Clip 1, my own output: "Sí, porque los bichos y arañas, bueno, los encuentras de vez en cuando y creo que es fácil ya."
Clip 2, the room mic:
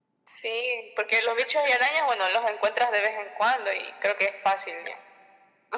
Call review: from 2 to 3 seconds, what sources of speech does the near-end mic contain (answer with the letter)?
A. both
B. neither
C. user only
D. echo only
D